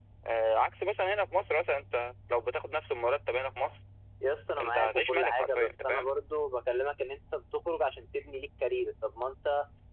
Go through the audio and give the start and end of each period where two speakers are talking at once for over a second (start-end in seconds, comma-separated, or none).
4.6-6.1